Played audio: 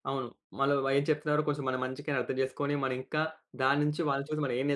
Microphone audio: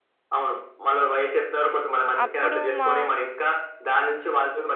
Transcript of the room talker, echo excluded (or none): అప్పుడు మా